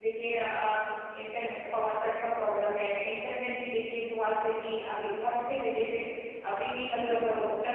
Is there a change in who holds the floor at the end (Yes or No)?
No